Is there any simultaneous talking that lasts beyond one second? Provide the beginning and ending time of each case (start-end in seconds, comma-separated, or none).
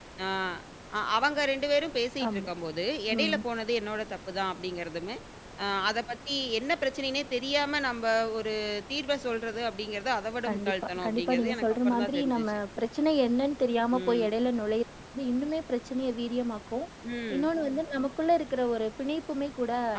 10.5-12.6